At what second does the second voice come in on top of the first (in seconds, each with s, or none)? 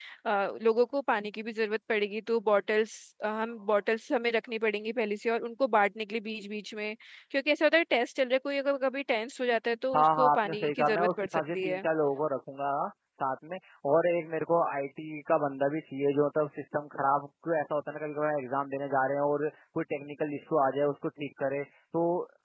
9.9 s